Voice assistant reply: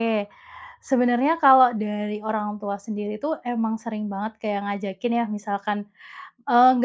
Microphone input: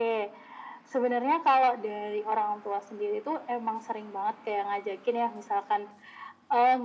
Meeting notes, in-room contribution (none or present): none